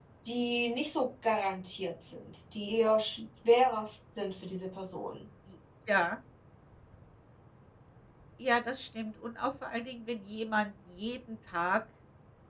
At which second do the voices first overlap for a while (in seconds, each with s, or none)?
none